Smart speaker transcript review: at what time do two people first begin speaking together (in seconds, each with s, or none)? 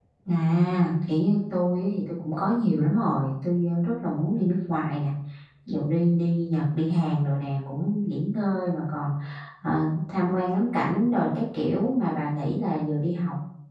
none